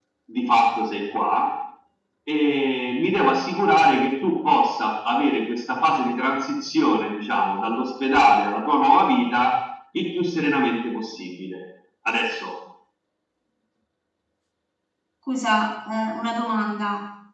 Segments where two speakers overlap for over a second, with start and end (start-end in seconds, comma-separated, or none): none